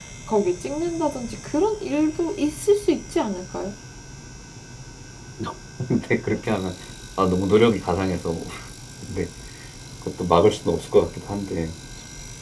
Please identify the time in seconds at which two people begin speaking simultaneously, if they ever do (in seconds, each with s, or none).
none